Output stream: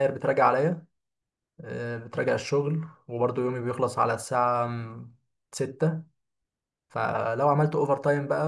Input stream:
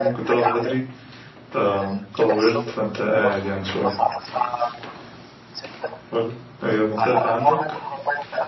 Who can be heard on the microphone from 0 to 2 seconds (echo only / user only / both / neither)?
both